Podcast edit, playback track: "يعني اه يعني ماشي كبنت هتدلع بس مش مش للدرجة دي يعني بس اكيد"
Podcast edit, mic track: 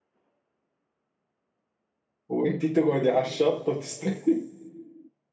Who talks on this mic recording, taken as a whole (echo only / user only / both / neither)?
user only